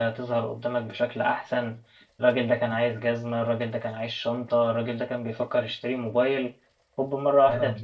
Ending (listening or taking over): taking over